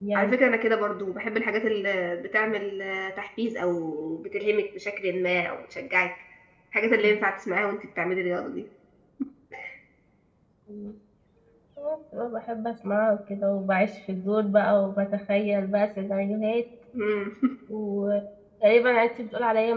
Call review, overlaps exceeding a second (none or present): none